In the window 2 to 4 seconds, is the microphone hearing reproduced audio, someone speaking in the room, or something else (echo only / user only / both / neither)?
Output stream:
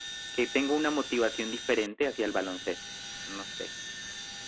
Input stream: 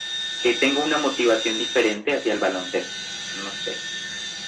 echo only